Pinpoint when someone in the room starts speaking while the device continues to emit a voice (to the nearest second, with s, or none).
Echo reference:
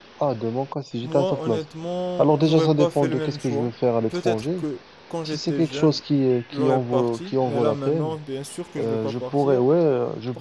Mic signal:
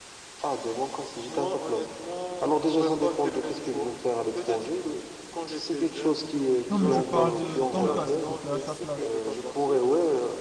7 s